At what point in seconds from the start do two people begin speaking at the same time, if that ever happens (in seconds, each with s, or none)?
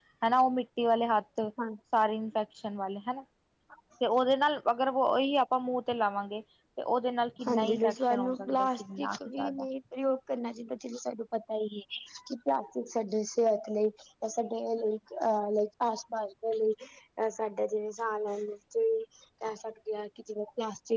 7.4 s